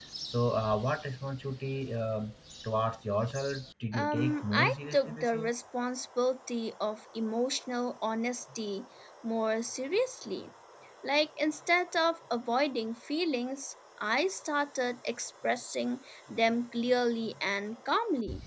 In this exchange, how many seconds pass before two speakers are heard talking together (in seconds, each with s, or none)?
3.9 s